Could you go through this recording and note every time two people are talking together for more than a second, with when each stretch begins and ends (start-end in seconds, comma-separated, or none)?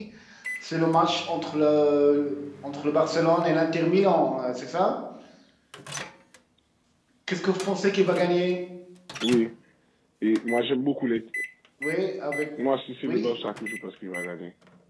none